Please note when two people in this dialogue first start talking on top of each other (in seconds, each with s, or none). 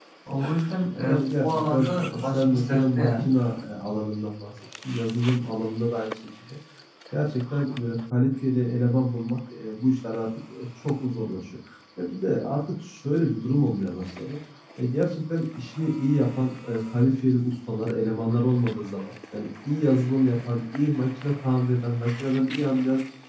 1.0 s